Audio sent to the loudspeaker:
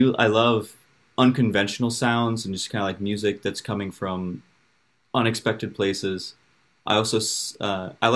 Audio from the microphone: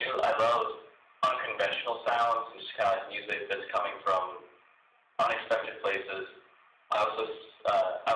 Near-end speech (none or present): none